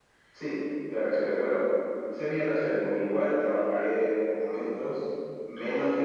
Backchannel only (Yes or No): Yes